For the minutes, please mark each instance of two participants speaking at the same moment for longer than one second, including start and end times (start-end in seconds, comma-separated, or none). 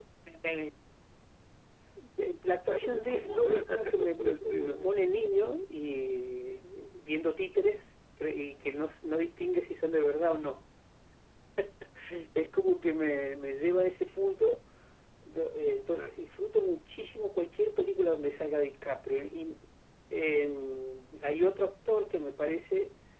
2.7-4.9